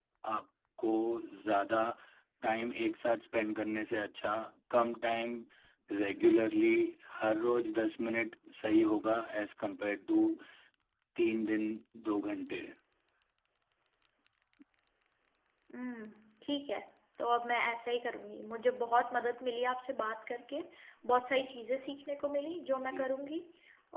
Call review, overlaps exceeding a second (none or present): none